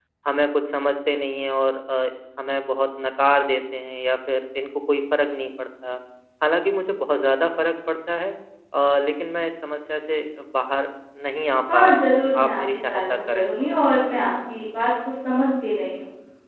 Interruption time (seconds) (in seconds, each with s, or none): 11.7 s